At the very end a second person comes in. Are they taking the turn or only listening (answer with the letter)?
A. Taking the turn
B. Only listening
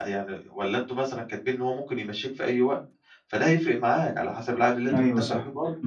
A